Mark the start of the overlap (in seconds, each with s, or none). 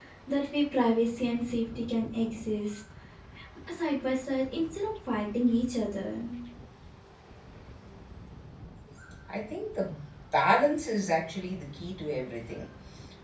none